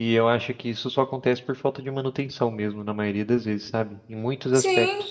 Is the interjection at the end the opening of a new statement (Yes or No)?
Yes